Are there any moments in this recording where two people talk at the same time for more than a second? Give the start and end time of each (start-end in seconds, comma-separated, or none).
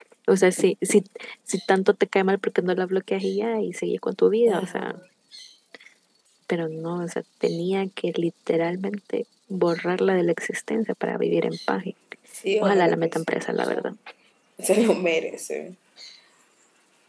12.6-13.8